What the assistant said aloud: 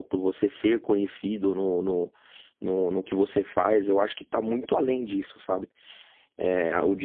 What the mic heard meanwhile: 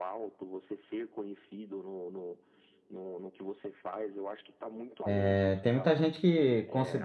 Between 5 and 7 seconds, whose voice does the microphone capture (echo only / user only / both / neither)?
both